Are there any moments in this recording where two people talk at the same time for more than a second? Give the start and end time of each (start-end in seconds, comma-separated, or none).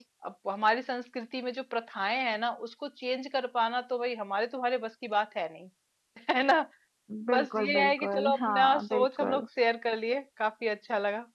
7.3-9.4